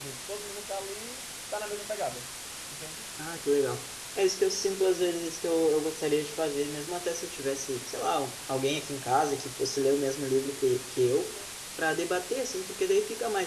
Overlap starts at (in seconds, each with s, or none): none